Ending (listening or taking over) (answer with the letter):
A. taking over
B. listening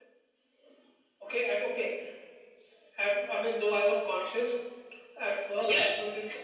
B